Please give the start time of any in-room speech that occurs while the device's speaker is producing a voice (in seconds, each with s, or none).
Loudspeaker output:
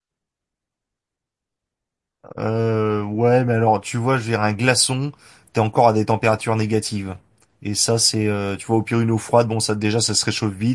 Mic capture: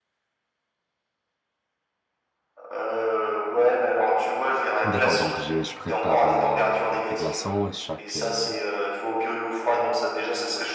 4.8 s